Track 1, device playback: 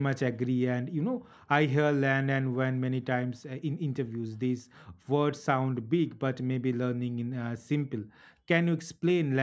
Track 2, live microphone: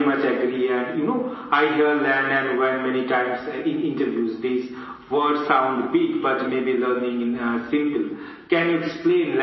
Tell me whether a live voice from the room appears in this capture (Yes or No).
No